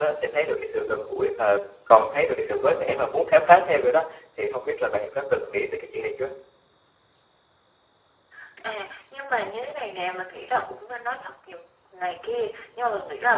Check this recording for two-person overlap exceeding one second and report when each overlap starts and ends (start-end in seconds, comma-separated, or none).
none